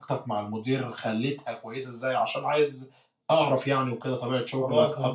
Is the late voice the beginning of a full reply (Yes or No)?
Yes